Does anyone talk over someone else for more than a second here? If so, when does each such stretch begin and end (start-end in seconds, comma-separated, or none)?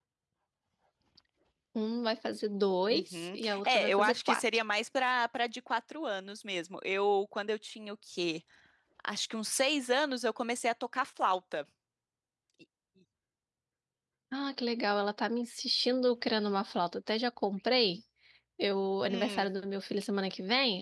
2.9-4.4